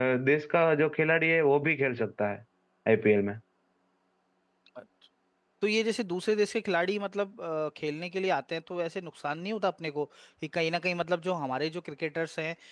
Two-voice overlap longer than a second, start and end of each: none

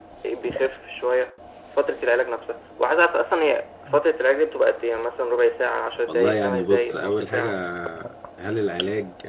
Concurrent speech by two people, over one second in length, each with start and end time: 6.1-7.5

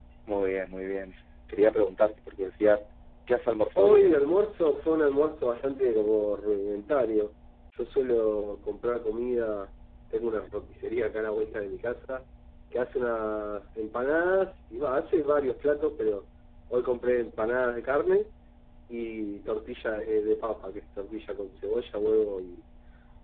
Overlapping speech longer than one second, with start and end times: none

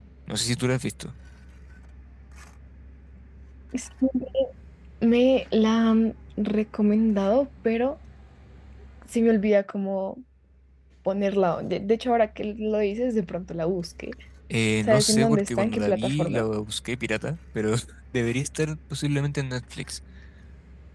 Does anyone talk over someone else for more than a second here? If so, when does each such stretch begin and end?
14.8-16.4

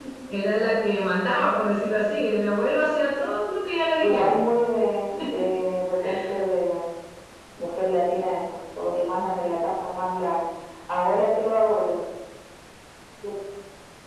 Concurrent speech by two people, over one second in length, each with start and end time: none

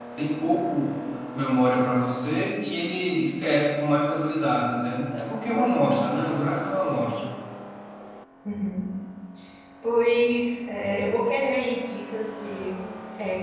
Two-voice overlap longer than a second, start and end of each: none

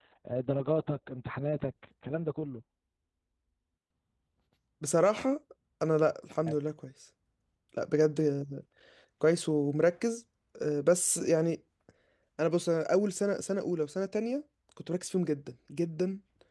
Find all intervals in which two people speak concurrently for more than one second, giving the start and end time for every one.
none

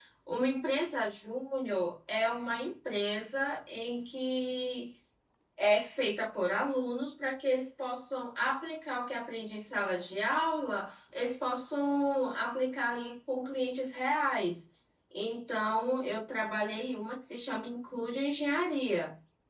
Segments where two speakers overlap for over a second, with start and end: none

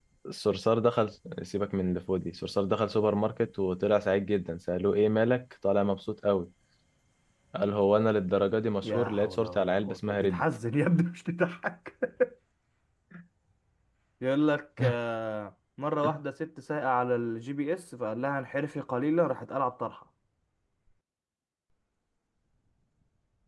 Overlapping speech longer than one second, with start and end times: 8.8-10.4

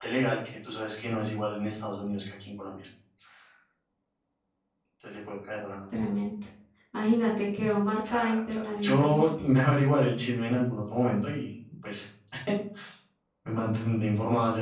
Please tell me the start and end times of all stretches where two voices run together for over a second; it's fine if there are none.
8.1-9.3

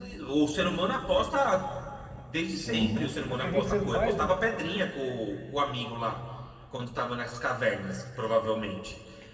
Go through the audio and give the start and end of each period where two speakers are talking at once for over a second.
2.6-4.3

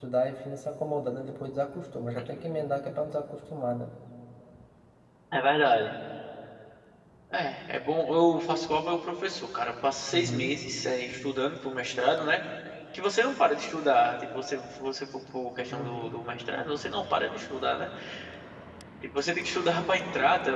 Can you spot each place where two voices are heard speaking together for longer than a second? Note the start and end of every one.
none

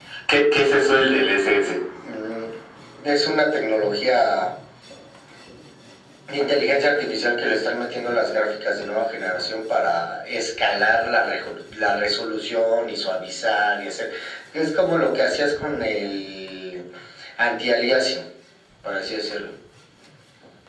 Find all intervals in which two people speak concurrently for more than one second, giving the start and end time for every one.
none

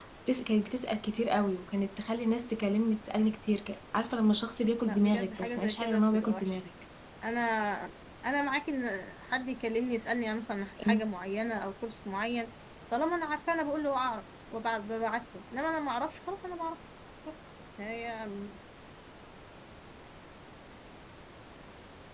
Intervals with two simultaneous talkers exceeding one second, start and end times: 4.8-6.6

